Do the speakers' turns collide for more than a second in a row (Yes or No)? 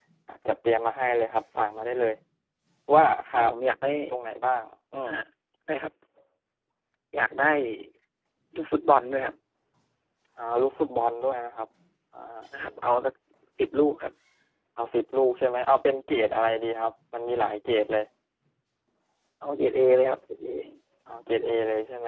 No